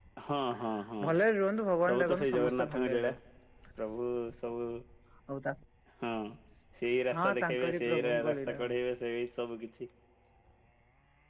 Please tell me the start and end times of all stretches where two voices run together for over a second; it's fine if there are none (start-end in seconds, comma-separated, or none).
1.9-3.1, 7.1-8.7